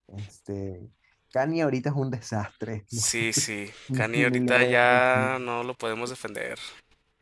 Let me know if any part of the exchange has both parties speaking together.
Yes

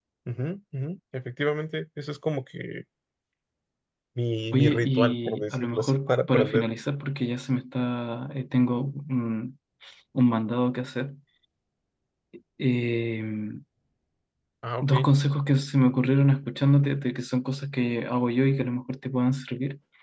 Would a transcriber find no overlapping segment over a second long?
No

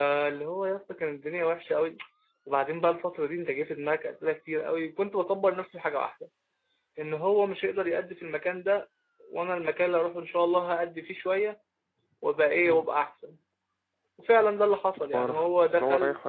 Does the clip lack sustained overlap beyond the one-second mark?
No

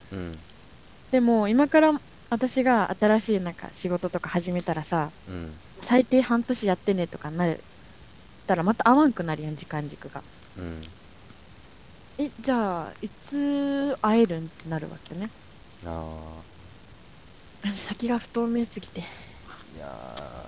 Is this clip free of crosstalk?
Yes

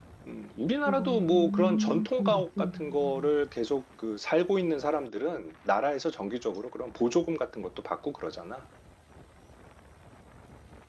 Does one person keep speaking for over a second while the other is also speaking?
Yes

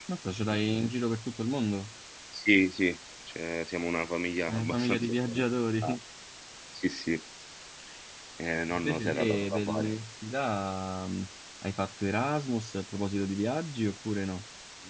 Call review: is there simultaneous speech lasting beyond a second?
Yes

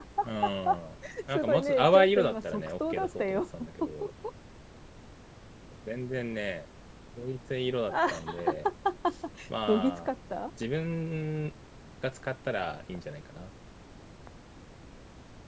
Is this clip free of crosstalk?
No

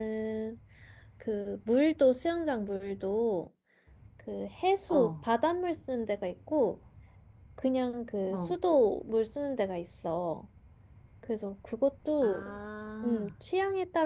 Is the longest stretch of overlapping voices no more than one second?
Yes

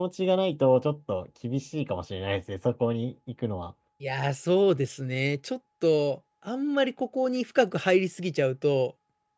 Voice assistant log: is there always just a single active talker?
Yes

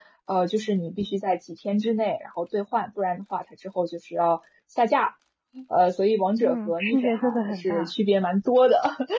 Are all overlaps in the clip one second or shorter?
No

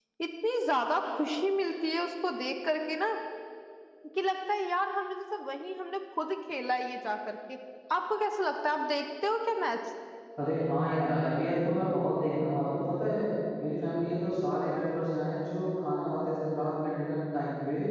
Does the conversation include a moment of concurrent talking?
No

